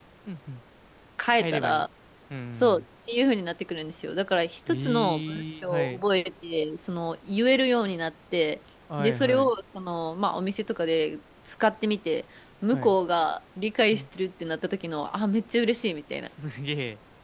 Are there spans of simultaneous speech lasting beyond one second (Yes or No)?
Yes